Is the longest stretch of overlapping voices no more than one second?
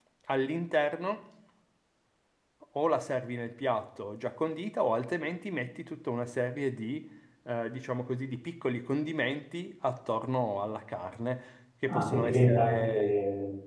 No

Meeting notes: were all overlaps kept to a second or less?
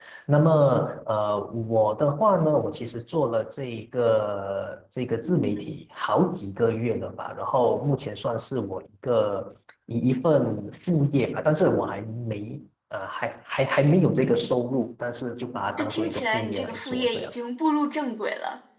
No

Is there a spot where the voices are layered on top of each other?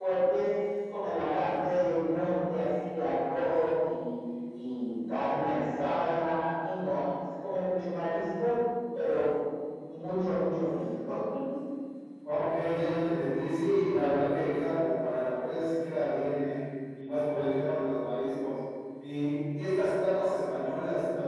No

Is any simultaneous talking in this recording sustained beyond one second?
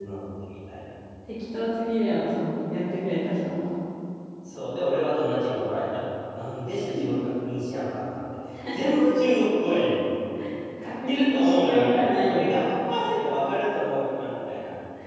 Yes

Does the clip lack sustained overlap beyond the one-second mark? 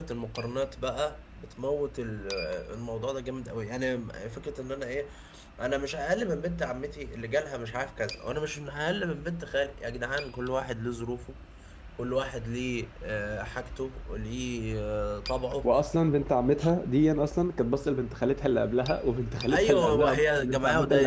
No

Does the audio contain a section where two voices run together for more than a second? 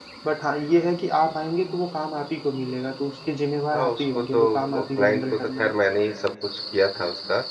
Yes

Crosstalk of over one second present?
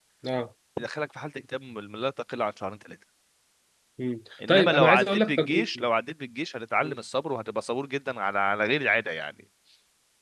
Yes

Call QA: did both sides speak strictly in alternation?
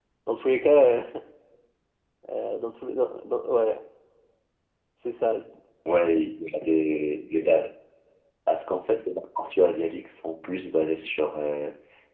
Yes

